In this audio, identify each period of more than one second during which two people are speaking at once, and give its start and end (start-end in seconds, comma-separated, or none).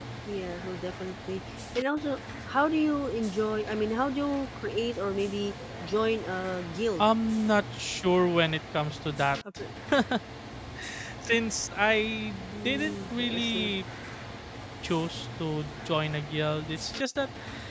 12.5-13.7